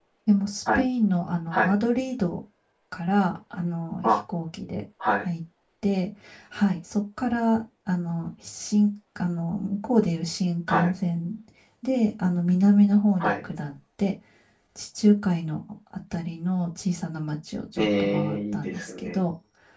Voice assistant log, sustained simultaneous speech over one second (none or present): present